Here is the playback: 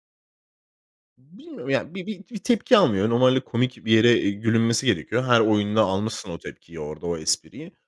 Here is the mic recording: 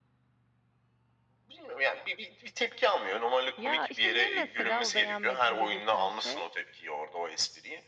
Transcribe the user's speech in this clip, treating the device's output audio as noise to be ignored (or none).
Ya, işte ne mesela o beğenmedim dedirten şey?